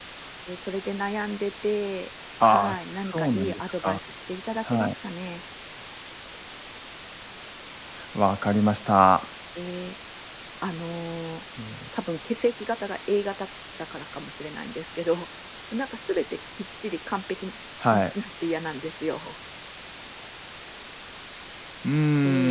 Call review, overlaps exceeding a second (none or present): present